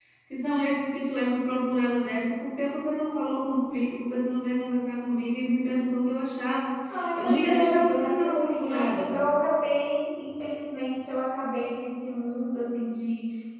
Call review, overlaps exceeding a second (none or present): present